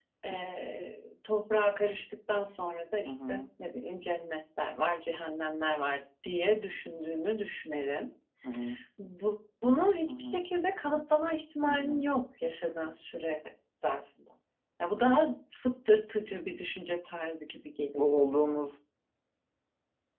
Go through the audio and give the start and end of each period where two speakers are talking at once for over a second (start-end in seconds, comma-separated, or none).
none